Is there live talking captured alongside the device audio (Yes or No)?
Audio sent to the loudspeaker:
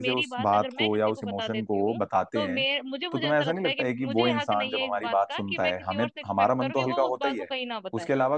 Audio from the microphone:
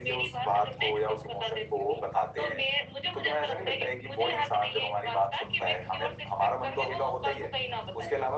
No